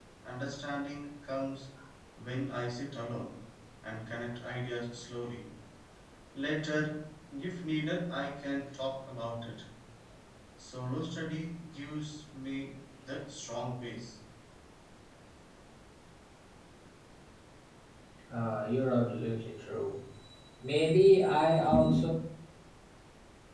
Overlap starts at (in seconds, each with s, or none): none